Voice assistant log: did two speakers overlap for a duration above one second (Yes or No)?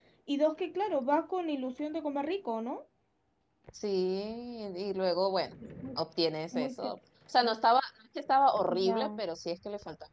No